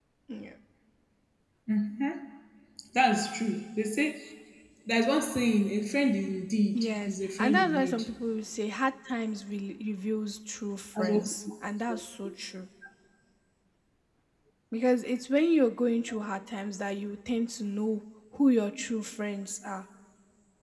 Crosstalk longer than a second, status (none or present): present